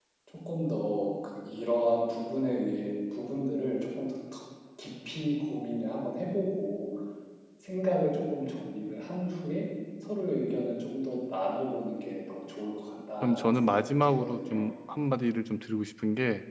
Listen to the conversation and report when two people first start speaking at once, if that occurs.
13 s

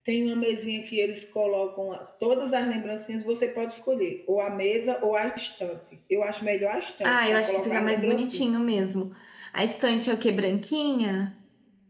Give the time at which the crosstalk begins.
7 s

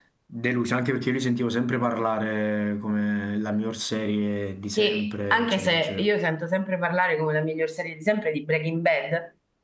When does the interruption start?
5 s

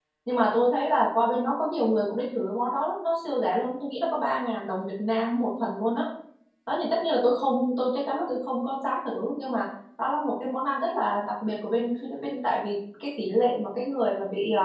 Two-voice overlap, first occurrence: none

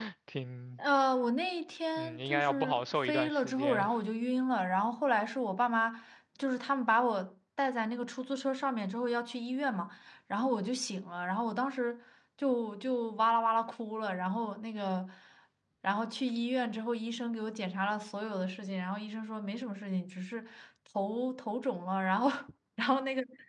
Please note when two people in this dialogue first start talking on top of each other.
2 s

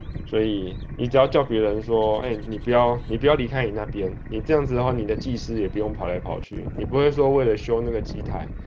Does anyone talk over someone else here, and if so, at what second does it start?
none

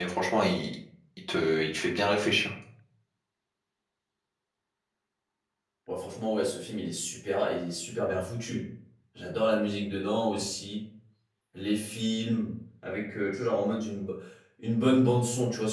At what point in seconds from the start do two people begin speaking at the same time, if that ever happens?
none

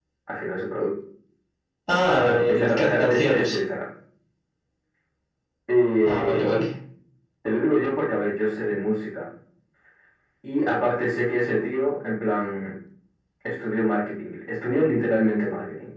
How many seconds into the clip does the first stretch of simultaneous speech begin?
2 s

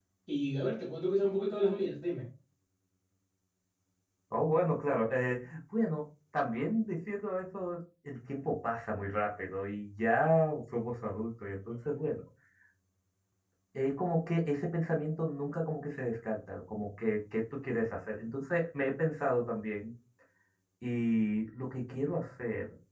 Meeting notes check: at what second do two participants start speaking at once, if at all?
none

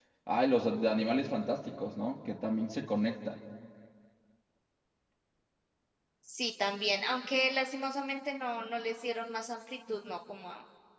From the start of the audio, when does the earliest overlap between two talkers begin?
none

